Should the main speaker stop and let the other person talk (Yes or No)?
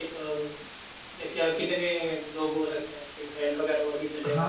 Yes